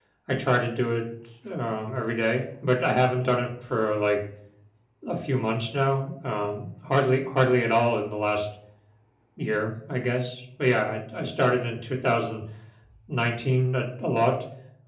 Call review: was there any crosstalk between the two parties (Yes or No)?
No